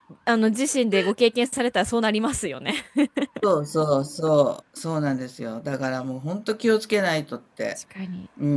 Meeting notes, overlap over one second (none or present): none